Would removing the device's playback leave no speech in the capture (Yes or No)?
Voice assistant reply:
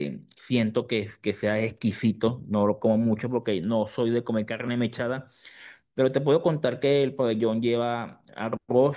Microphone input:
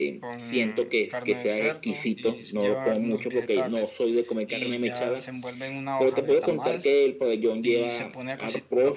No